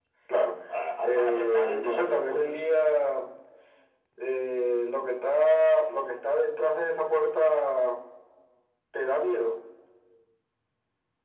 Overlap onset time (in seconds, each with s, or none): 1.0 s